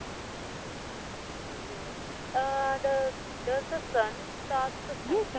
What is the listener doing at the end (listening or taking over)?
taking over